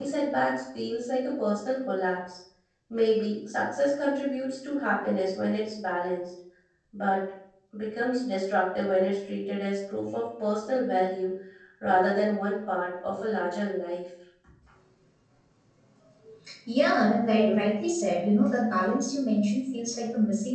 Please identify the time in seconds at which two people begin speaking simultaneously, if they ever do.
none

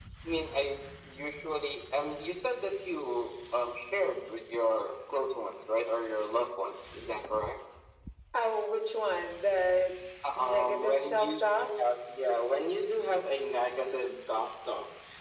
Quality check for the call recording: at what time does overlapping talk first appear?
10.4 s

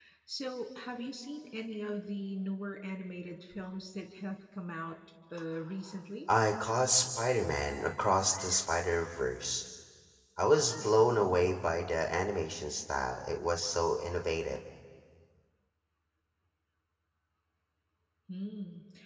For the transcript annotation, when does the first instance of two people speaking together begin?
none

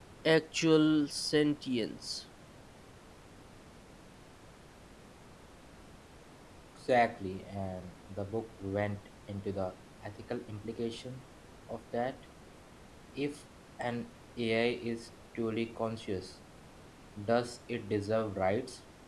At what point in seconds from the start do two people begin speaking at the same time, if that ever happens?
none

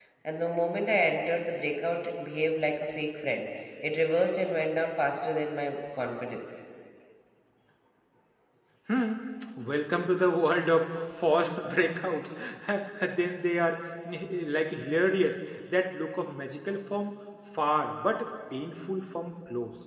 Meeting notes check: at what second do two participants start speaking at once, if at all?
none

